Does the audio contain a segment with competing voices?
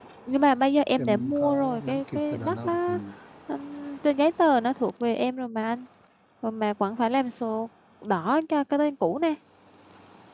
Yes, from 1.0 s

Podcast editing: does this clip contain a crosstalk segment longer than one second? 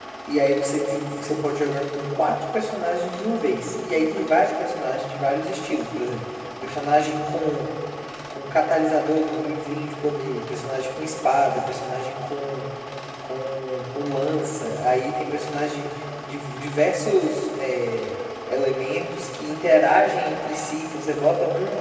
No

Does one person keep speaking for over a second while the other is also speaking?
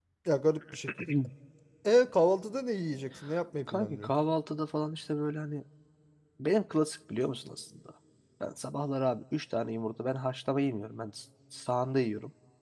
No

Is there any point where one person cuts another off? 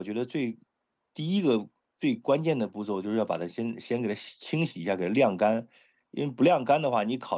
No

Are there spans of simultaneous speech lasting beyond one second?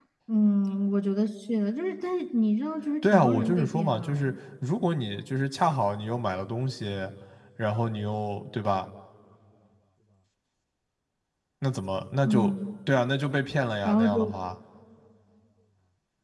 Yes, from 3.0 s

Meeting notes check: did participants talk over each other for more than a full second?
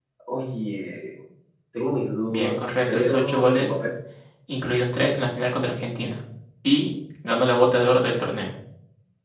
Yes, from 2.3 s

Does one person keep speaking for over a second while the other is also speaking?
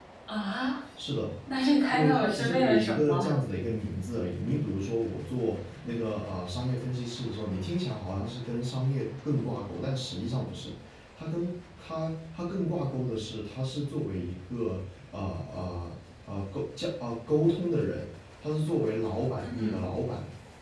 Yes, from 1.9 s

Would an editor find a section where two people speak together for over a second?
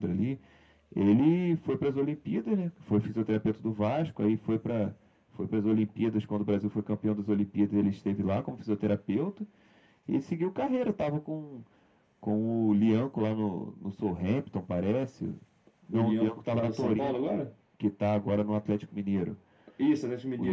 Yes, from 15.9 s

